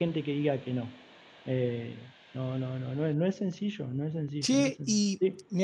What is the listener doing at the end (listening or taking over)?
taking over